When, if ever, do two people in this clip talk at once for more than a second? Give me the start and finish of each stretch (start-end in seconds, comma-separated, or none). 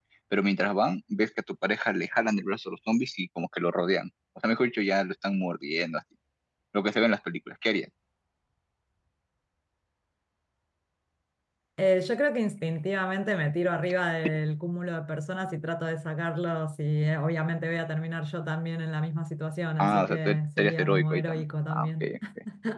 19.8-22.1